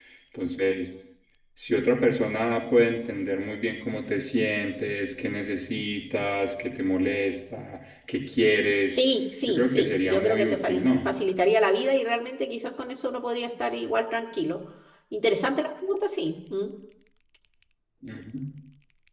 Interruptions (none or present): present